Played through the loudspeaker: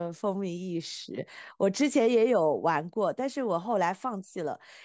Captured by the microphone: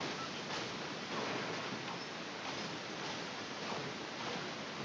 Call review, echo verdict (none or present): none